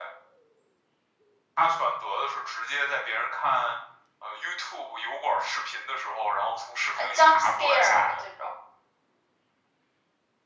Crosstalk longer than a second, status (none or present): present